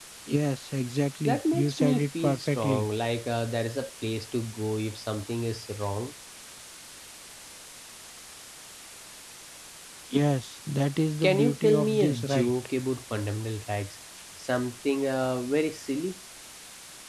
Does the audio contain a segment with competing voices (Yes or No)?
Yes